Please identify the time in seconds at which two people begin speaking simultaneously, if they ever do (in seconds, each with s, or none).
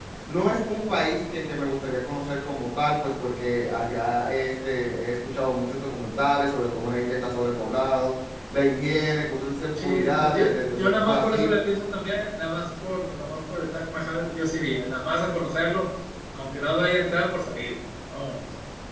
9.8 s